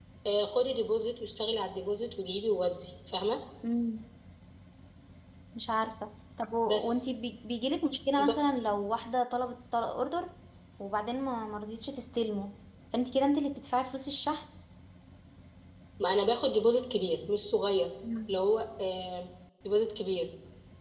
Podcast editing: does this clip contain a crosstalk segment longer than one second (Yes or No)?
No